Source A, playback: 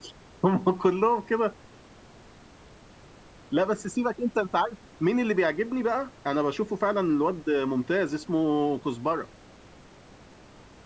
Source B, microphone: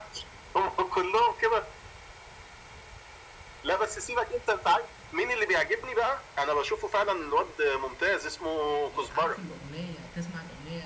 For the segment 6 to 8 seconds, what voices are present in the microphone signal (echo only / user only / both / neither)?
echo only